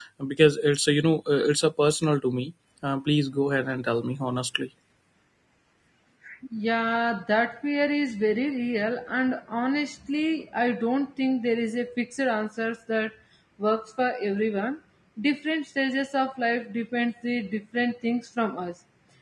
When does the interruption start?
none

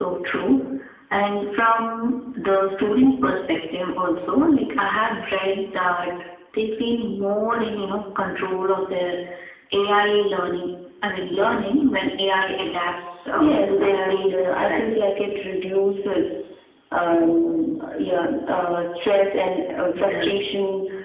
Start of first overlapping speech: 13.4 s

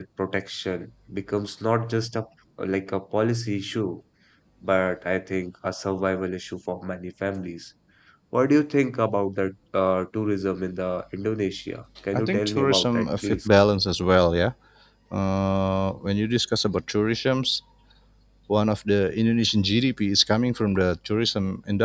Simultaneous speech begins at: 12.1 s

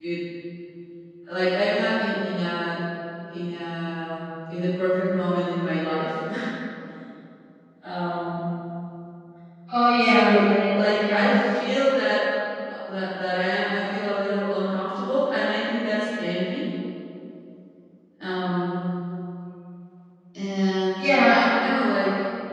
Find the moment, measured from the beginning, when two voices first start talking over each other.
10.0 s

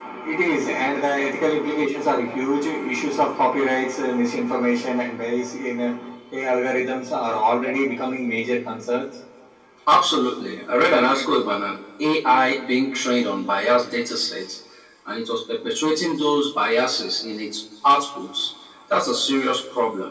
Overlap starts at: none

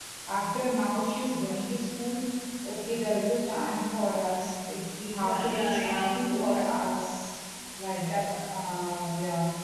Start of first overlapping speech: 5.2 s

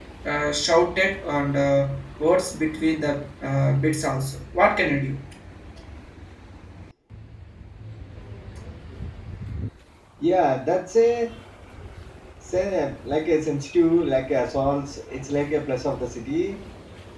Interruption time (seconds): none

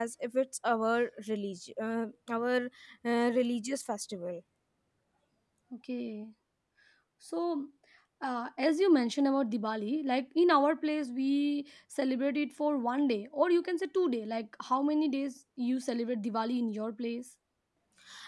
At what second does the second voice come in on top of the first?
none

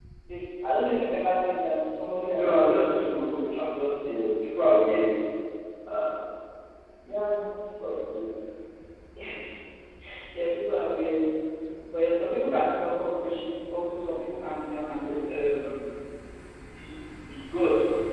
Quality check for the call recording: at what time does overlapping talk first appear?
2.3 s

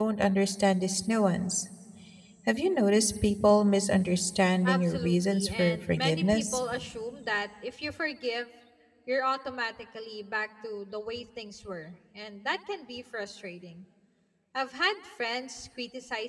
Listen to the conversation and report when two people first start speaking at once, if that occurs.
4.6 s

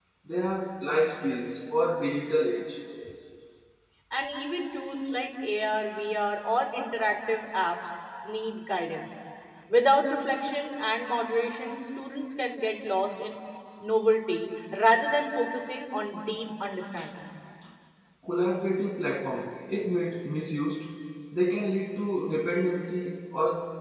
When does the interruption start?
none

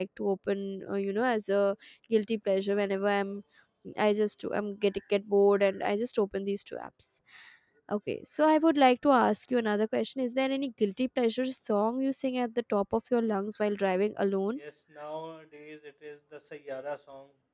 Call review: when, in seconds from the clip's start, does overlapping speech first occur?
none

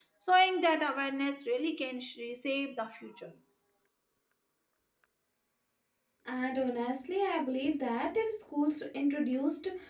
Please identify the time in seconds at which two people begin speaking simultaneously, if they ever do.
none

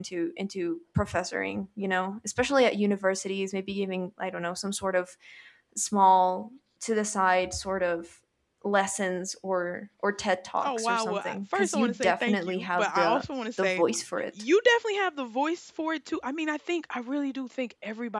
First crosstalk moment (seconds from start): 10.6 s

